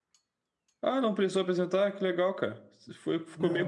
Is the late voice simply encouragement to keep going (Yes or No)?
Yes